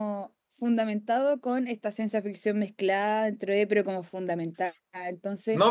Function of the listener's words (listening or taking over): taking over